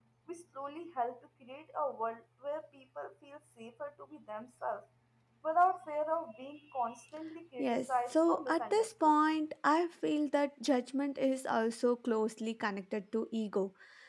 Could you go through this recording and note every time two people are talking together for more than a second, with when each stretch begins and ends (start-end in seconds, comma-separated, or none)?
7.6-9.2